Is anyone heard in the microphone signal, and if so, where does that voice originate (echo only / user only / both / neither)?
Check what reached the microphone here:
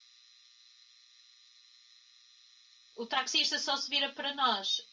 user only